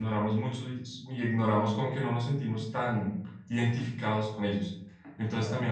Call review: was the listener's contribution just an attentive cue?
Yes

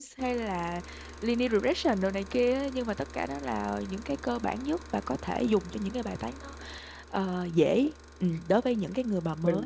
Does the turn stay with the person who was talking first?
No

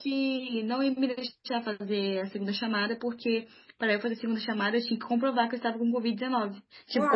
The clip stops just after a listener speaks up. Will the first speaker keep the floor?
Yes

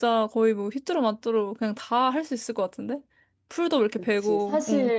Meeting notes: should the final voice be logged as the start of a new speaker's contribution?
Yes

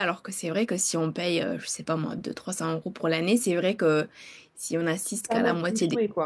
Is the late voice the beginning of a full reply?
Yes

